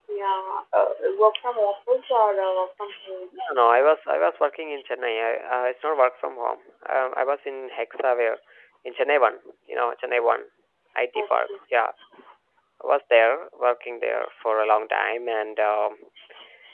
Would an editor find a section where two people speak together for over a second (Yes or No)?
No